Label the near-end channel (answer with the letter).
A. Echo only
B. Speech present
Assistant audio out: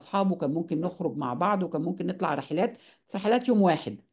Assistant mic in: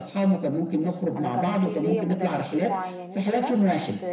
B